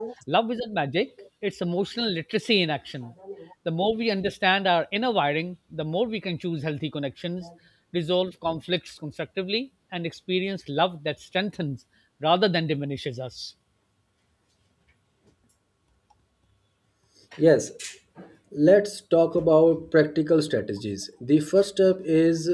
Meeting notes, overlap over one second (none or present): none